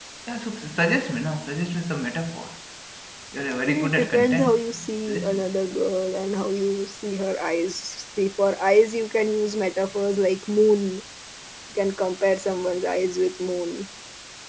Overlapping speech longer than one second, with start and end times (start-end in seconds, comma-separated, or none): 3.6-5.5